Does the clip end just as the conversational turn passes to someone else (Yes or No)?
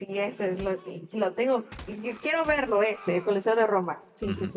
Yes